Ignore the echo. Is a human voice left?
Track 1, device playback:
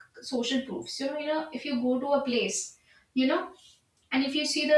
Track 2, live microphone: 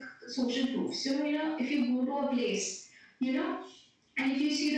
No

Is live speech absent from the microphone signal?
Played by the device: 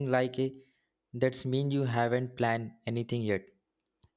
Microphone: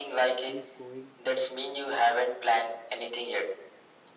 No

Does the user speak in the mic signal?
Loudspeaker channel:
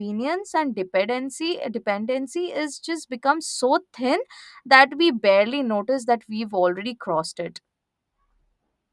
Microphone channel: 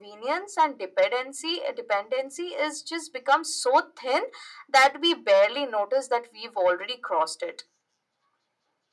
No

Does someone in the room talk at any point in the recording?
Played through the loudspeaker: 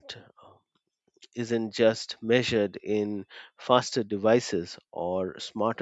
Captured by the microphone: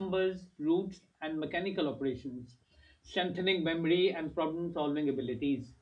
Yes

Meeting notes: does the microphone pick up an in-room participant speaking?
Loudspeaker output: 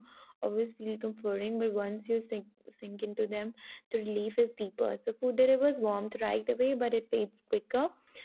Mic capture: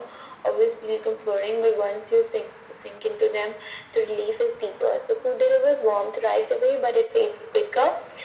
No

